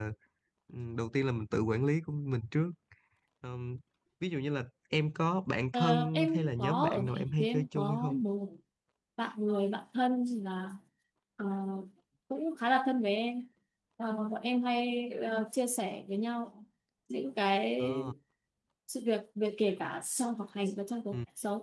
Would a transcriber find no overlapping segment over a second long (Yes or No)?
No